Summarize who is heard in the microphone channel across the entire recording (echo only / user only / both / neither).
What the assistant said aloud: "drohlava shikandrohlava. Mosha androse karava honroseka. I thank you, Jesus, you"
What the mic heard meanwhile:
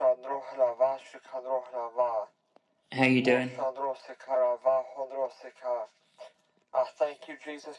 both